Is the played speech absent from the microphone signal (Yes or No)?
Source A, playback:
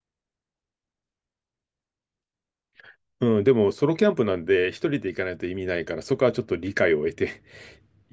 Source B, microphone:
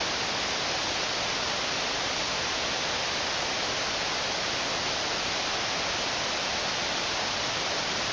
Yes